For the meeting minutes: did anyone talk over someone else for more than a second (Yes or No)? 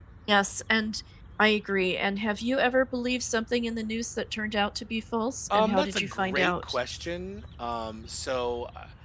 Yes